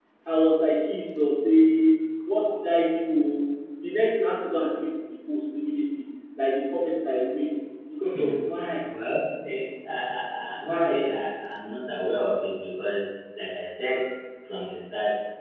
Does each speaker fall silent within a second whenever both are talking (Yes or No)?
Yes